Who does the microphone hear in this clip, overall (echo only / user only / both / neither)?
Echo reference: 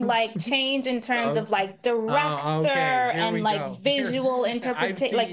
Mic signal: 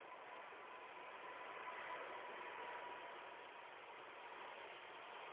neither